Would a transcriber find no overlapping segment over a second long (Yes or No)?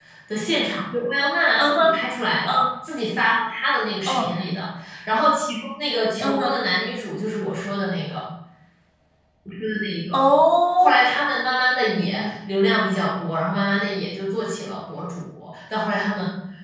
Yes